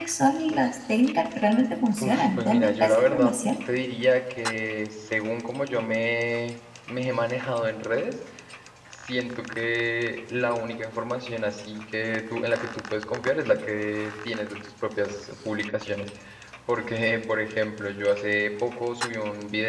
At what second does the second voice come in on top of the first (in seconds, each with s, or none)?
2.0 s